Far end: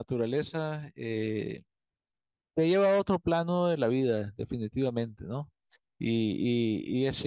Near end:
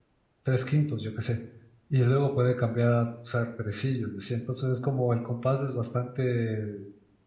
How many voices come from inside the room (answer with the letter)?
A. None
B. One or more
B